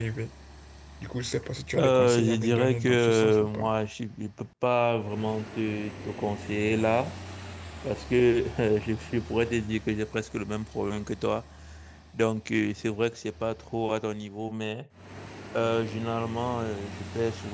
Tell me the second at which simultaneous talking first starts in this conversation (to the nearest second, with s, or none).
2 s